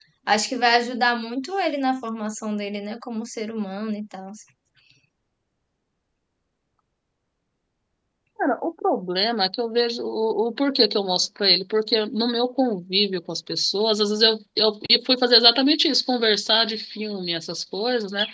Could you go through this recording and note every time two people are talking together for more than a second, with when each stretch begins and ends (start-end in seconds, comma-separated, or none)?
none